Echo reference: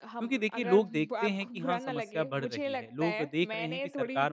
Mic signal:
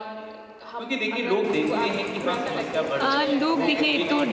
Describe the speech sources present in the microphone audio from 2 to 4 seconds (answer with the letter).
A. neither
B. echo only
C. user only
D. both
D